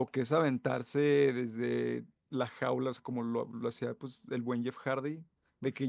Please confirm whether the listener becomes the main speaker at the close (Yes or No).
No